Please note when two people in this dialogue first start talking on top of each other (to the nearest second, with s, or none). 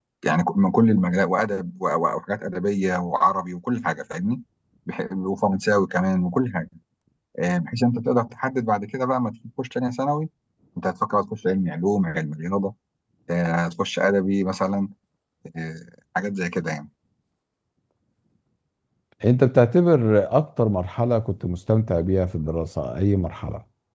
none